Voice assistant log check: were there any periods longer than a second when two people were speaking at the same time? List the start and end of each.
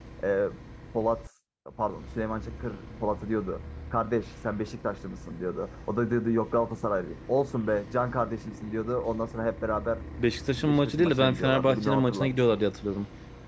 10.6-12.4

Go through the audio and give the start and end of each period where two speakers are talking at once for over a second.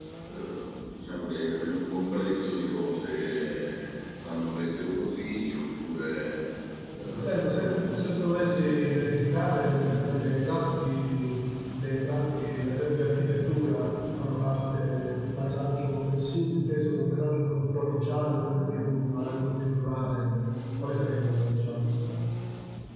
7.1-8.8

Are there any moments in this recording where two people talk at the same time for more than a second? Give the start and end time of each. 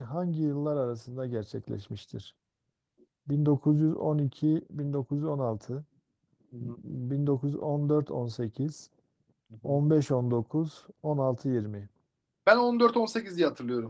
none

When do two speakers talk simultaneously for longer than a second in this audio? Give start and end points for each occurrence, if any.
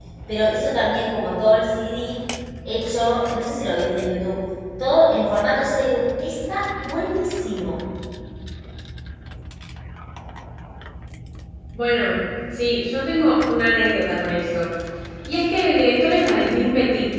none

